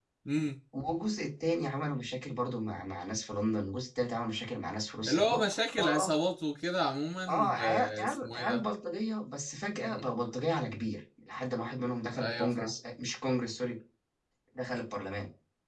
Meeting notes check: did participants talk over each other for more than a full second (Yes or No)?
Yes